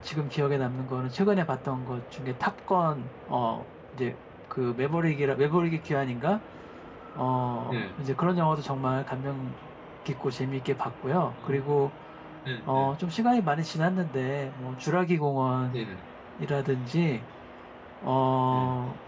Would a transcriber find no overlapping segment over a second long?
Yes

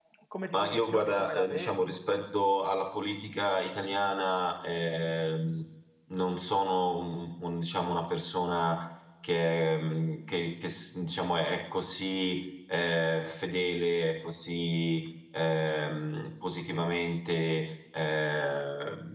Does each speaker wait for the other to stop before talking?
No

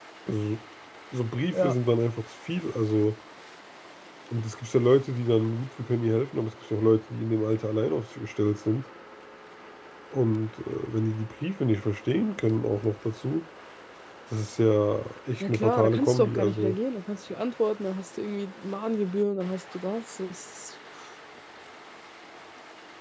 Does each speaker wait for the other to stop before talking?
No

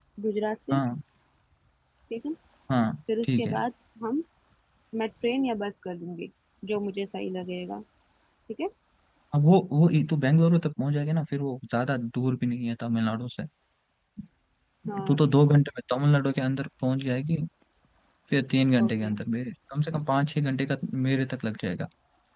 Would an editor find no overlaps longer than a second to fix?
Yes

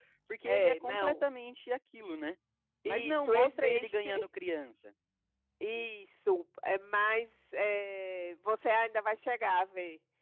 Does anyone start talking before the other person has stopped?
Yes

